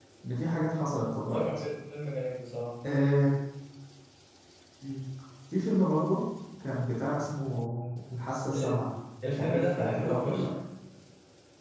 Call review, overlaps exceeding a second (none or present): present